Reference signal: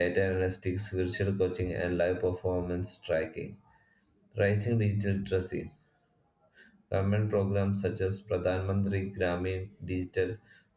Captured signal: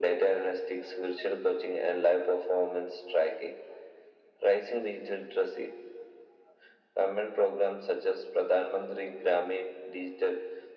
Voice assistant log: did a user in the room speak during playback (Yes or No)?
No